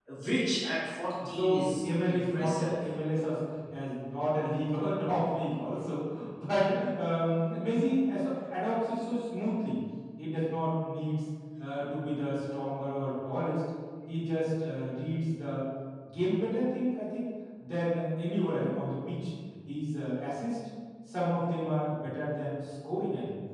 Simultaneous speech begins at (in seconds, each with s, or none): 1.2 s